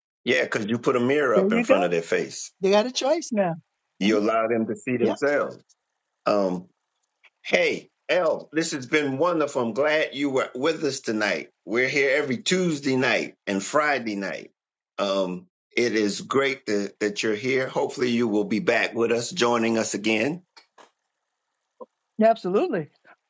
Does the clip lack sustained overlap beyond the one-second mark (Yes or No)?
Yes